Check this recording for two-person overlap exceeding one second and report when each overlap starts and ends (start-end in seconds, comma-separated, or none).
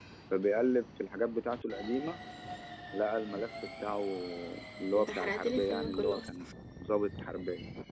5.0-6.5